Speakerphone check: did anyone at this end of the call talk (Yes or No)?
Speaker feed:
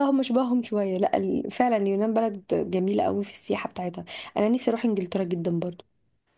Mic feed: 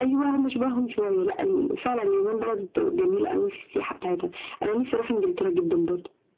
No